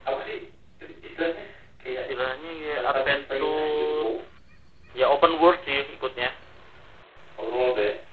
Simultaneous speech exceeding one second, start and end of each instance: 2.8-4.1

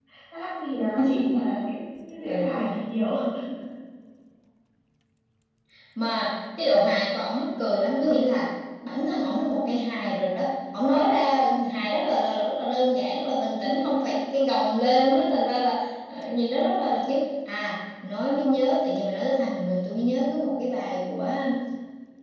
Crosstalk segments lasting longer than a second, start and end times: none

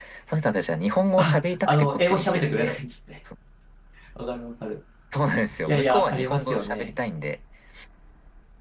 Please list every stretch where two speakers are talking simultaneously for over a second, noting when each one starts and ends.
1.2-2.8, 5.7-7.0

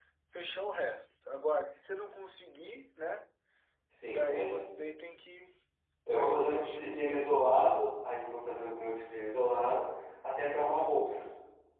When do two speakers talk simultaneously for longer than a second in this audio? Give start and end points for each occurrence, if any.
6.1-7.4

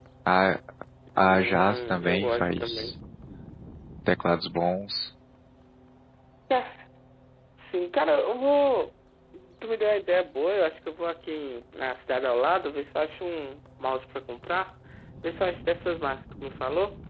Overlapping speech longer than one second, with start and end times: 1.2-2.9

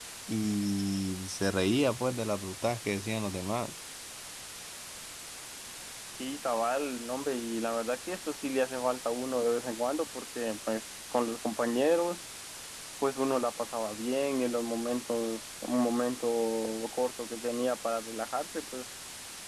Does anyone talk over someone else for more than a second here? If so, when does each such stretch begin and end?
none

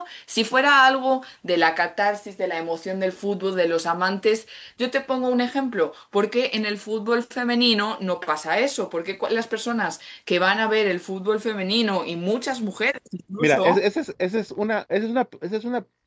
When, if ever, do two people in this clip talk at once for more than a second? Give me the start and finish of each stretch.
none

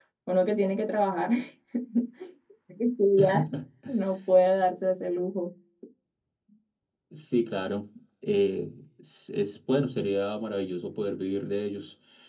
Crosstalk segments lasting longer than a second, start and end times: none

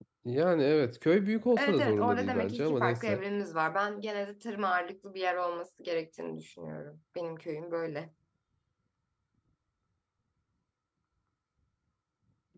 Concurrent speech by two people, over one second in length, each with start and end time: 1.6-3.2

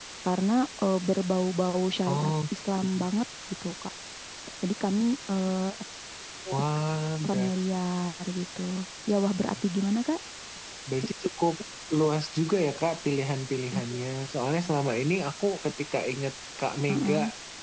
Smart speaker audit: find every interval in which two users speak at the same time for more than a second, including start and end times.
none

